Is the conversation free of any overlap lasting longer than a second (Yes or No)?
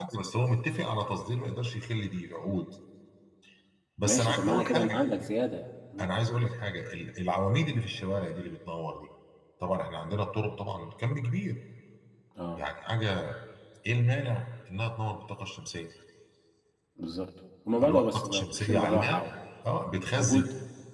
No